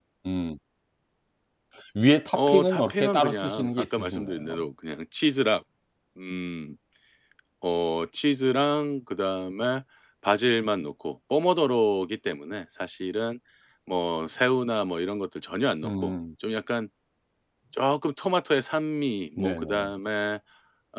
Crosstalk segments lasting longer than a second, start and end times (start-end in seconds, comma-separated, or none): 2.3-4.6